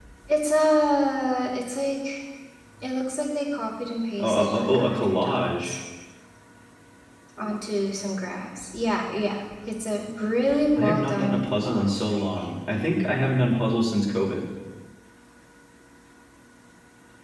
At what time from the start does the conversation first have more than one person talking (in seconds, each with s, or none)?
4.2 s